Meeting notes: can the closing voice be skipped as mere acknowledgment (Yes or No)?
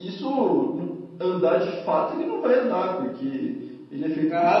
No